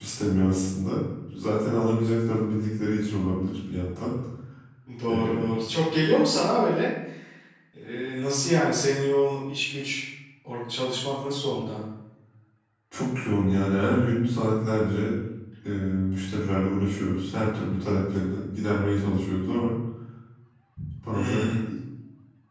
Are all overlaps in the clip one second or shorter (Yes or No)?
Yes